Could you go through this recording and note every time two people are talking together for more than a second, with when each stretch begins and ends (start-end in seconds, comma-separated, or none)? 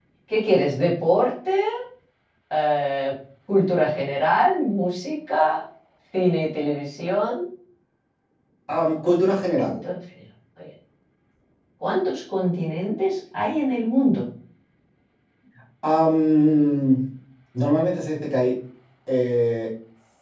none